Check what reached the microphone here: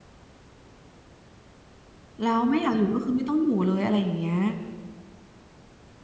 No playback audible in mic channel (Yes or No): Yes